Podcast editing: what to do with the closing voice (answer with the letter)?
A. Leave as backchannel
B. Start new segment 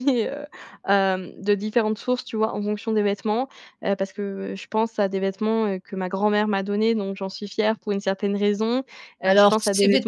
B